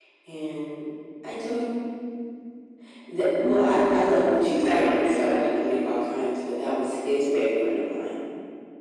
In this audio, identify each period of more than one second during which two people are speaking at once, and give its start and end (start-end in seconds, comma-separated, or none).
3.4-5.9